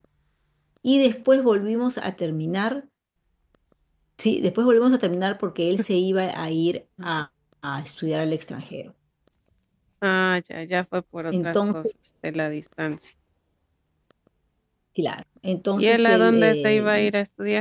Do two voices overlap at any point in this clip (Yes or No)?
Yes